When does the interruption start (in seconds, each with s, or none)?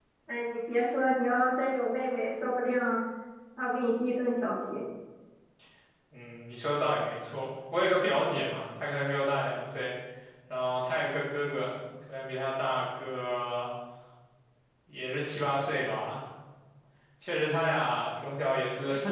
none